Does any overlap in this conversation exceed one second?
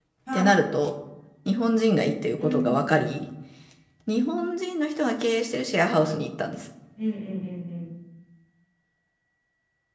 No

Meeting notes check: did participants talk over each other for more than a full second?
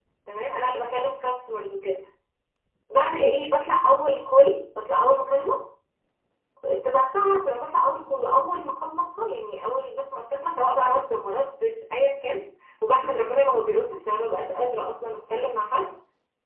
No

